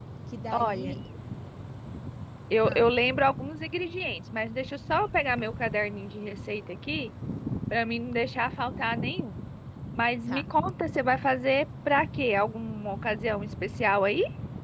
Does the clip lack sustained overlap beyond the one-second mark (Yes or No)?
Yes